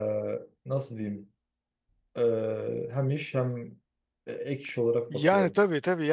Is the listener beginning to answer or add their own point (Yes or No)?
Yes